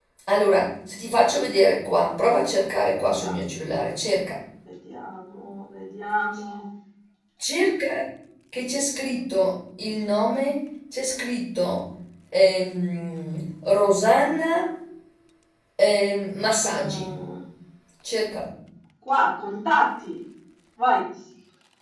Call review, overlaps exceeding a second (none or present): none